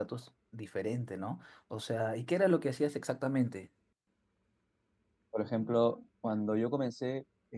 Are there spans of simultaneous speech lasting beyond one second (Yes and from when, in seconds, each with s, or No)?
No